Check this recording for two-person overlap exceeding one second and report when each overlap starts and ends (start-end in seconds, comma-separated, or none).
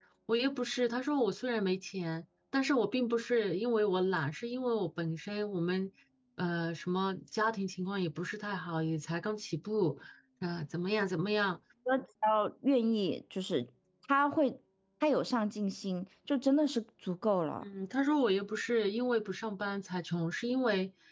none